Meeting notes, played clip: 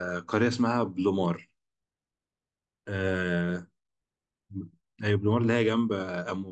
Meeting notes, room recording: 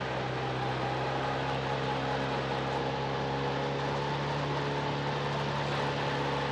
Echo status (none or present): none